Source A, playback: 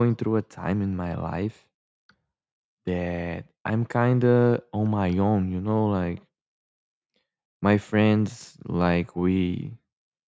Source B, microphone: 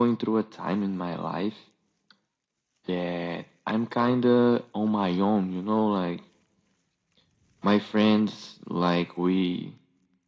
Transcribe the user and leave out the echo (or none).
none